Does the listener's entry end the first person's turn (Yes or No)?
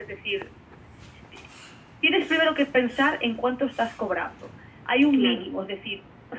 No